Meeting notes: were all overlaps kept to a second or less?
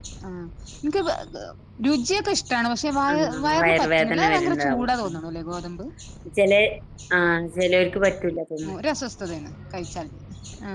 No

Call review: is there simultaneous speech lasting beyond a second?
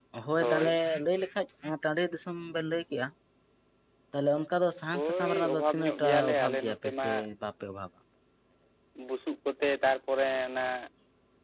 Yes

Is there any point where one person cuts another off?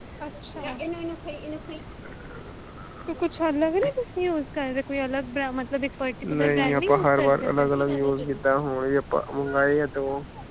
Yes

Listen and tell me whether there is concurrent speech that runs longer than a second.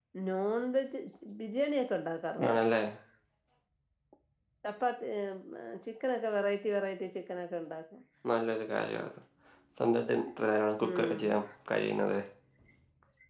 No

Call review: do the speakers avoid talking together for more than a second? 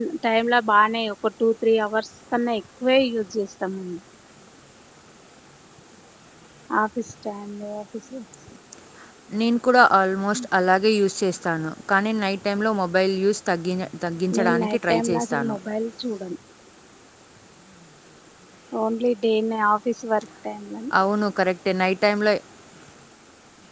No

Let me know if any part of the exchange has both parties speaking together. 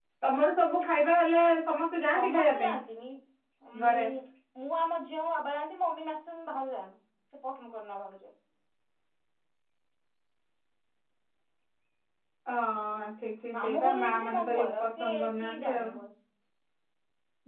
Yes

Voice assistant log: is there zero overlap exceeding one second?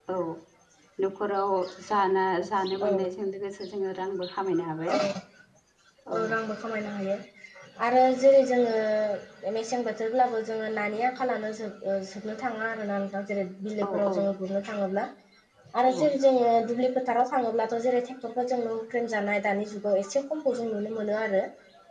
Yes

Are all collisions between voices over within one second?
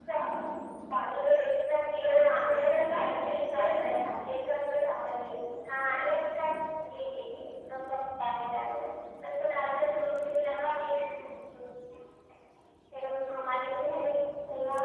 No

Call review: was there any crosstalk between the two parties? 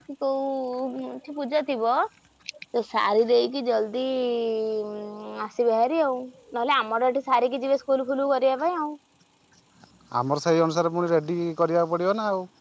No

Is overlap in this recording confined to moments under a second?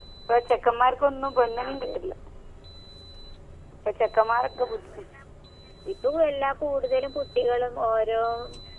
Yes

